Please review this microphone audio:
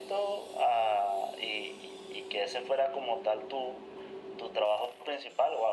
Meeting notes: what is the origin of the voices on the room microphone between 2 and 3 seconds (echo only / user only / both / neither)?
echo only